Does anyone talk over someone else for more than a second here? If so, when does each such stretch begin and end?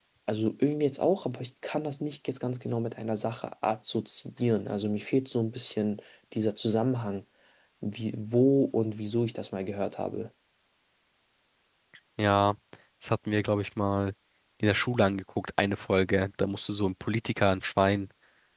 none

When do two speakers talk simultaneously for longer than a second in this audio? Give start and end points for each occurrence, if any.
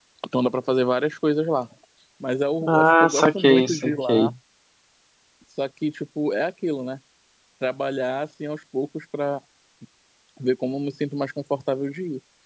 2.7-4.3

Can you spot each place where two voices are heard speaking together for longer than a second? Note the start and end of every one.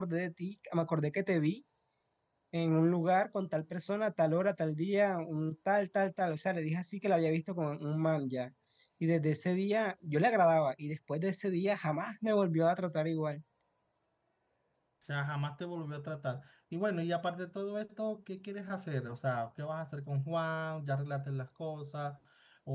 none

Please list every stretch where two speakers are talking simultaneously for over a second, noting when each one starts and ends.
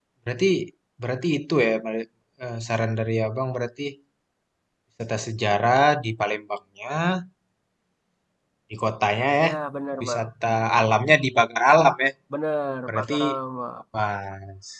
none

